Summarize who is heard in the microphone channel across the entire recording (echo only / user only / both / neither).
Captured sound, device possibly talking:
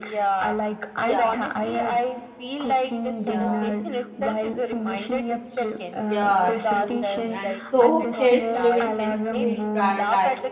both